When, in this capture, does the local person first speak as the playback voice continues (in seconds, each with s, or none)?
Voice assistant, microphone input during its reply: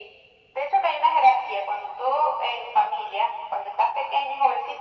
none